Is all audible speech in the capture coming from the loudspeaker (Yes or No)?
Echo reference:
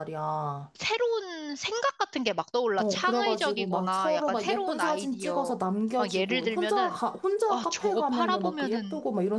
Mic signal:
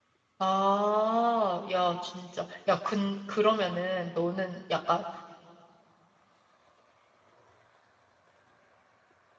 No